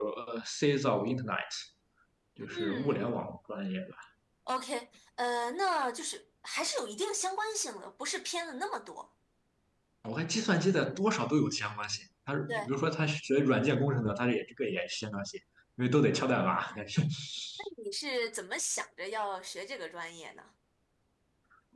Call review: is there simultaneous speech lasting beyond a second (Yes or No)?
No